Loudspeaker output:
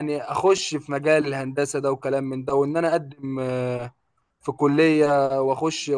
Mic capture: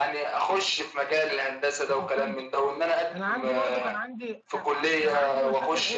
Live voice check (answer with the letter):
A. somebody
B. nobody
A